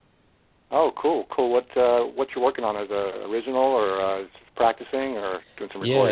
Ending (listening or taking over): taking over